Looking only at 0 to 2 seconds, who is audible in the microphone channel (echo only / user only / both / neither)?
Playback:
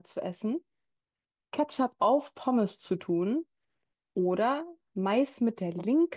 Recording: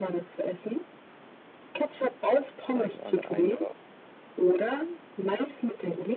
echo only